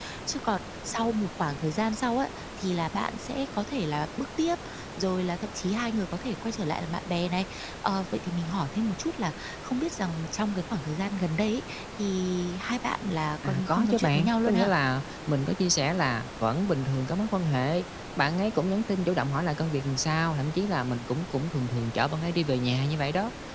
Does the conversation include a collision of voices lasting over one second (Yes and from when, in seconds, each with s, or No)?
Yes, from 13.4 s